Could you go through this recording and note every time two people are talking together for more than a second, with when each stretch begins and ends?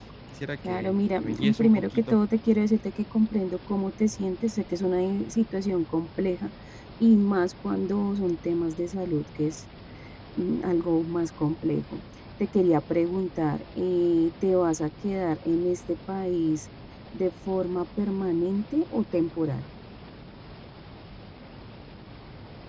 0.6-2.2

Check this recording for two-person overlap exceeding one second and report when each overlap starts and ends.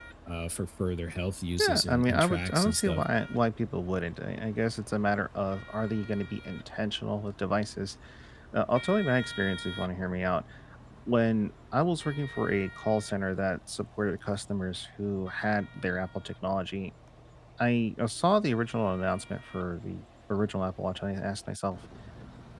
1.6-3.0

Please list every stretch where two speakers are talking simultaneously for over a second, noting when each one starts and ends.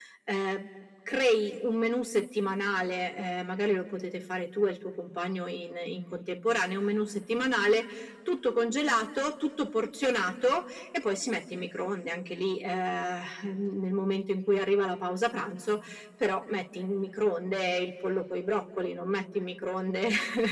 none

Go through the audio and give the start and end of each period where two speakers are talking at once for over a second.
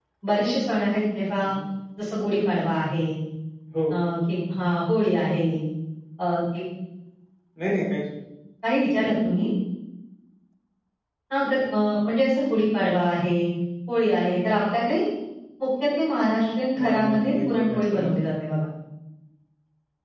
16.8-18.1

